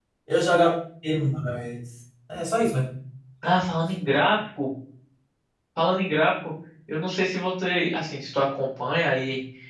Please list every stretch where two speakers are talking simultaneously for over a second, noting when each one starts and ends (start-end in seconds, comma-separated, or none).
none